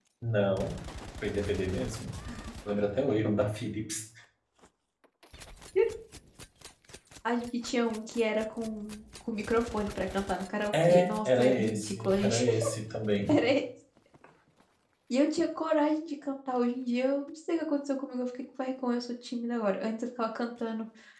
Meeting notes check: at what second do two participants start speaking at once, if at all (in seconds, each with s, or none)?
10.8 s